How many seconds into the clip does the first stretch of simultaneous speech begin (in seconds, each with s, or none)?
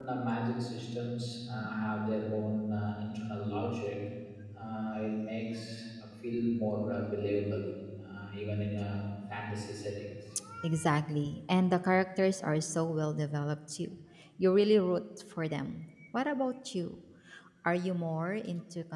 none